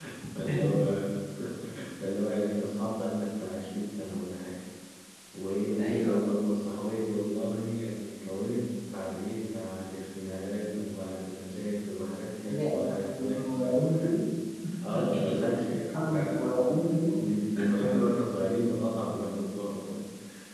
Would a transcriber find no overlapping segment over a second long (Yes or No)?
No